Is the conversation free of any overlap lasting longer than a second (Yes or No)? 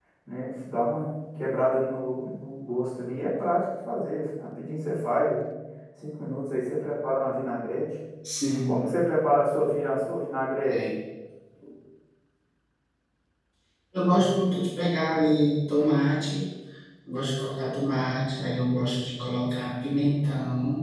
Yes